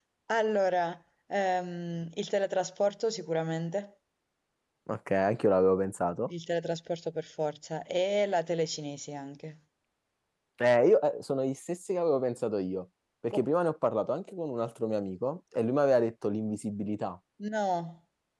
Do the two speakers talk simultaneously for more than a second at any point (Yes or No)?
No